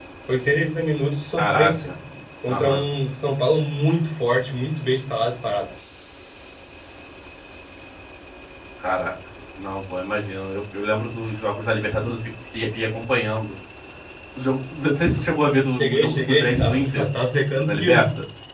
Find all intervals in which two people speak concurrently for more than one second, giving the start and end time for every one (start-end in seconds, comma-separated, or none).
15.8-17.0